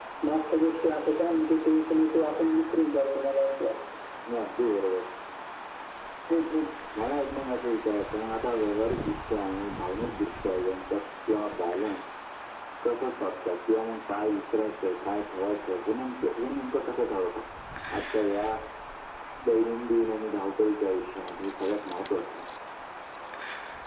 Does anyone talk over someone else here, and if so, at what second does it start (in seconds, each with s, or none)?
none